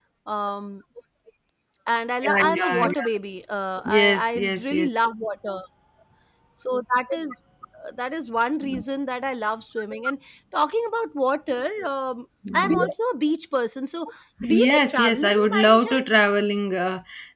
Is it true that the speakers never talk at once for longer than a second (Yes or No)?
No